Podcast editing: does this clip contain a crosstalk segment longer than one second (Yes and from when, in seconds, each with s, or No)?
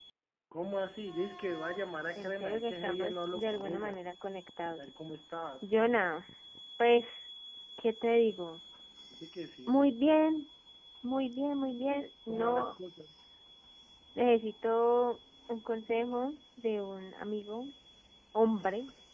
Yes, from 2.1 s